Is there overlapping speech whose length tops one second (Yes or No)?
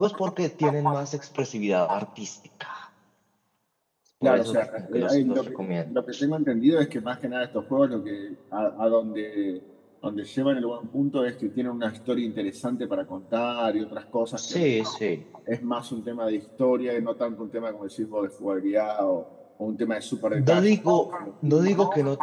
Yes